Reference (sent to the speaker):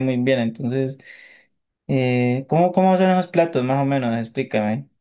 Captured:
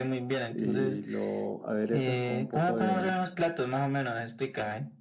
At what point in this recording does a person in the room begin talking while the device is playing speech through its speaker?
0.5 s

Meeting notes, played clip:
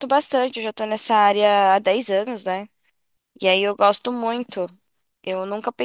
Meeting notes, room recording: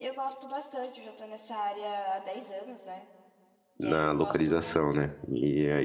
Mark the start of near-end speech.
3.8 s

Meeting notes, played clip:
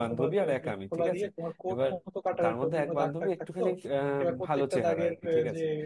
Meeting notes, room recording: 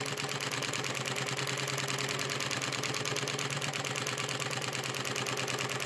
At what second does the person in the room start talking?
none

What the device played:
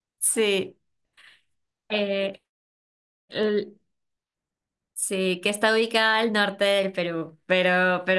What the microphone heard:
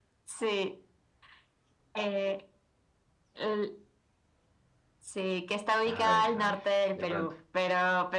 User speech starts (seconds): 5.8 s

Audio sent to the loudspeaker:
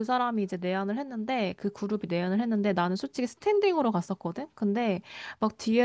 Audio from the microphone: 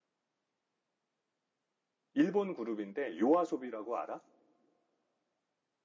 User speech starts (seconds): 2.1 s

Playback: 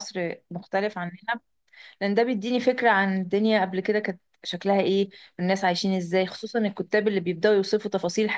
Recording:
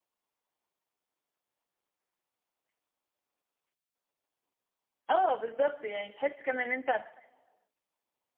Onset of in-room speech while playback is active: 5.1 s

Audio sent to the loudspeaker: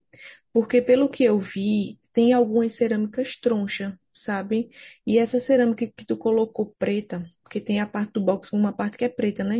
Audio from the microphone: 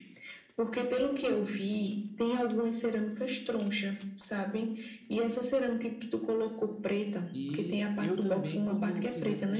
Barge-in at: 7.3 s

